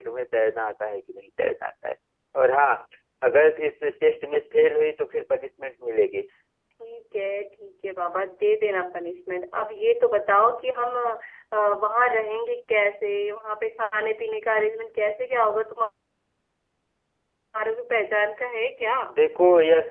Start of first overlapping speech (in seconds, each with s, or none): none